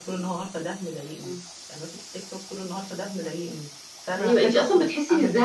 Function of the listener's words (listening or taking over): taking over